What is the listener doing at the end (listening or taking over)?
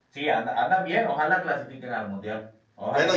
taking over